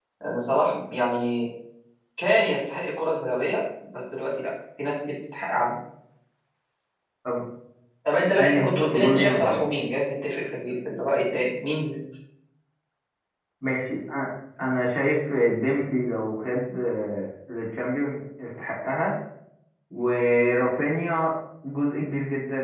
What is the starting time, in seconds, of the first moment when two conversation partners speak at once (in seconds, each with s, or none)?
8.4 s